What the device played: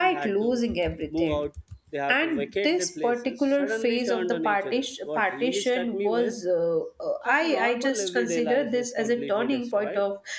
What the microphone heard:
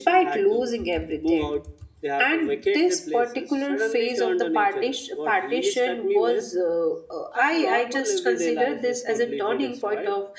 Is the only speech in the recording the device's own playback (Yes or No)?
Yes